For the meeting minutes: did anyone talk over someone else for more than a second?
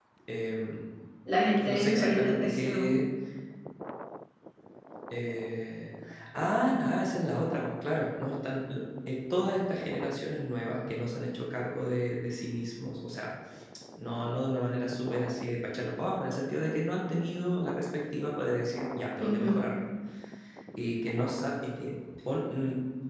Yes, from 1.6 s

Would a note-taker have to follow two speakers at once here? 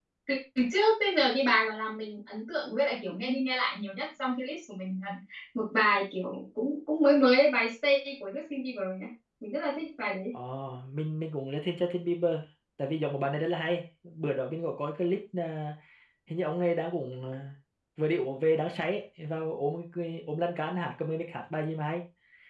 No

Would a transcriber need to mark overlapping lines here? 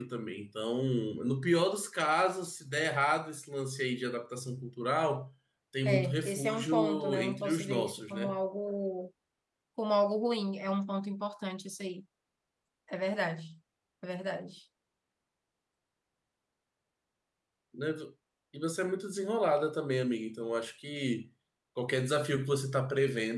Yes, from 5.8 s

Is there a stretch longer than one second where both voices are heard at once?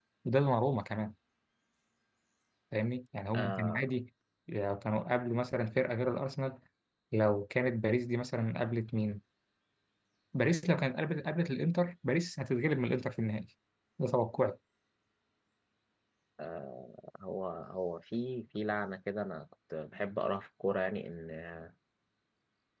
No

